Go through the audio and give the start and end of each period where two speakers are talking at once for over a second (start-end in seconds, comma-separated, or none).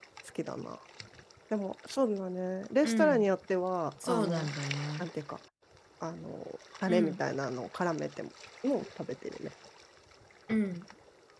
none